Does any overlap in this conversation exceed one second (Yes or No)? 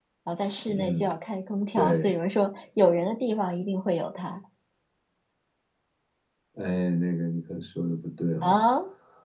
No